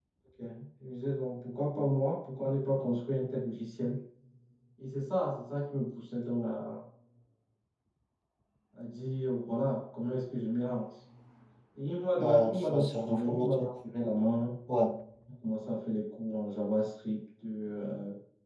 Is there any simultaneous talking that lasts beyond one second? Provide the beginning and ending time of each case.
12.2-13.7

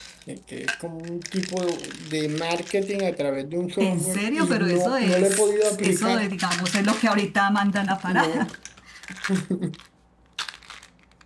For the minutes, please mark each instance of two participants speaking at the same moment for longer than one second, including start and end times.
3.8-6.3

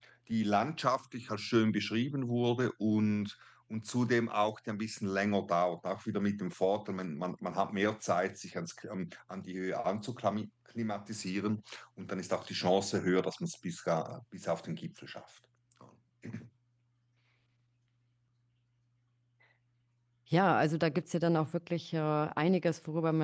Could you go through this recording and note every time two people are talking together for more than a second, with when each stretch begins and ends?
none

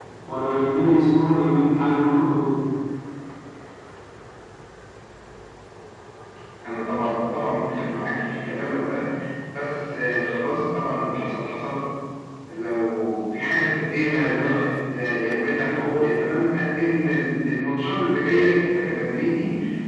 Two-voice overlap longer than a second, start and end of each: none

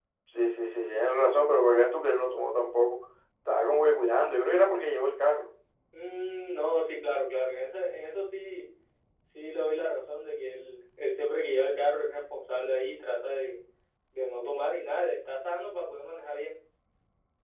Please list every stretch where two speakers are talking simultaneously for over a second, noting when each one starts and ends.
none

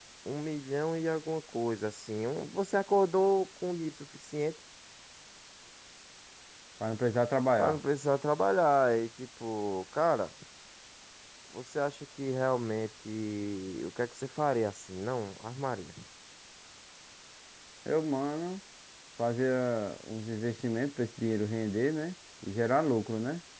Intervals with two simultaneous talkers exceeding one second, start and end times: none

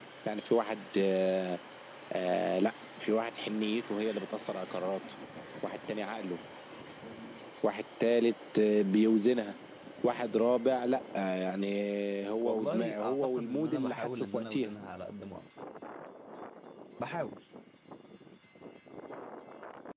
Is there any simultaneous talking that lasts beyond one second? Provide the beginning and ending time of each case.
12.4-14.7

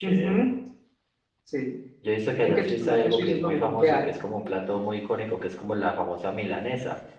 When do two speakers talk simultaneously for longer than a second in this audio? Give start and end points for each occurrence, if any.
2.4-4.1

